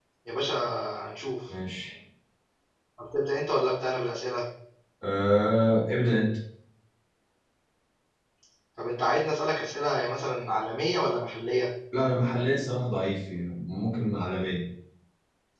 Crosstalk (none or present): none